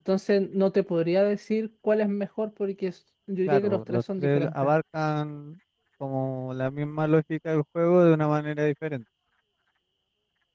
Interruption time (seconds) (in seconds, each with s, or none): 3.5 s